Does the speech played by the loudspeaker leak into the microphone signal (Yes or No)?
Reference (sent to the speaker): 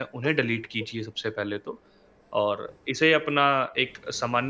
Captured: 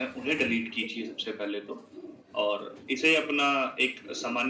Yes